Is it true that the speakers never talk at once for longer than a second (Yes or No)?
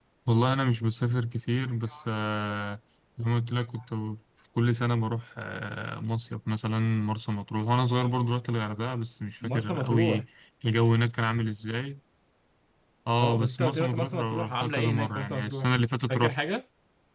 No